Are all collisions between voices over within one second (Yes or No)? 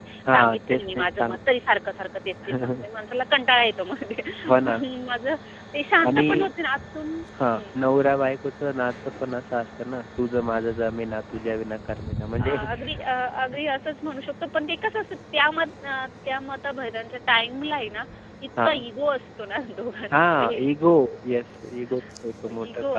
No